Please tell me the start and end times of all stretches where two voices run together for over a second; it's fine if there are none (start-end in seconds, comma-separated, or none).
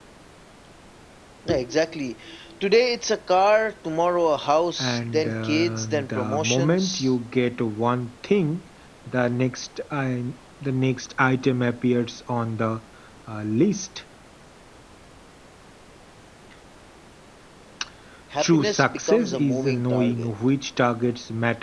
4.8-7.1, 18.4-20.3